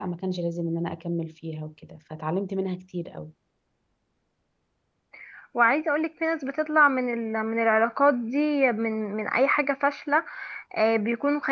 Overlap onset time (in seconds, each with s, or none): none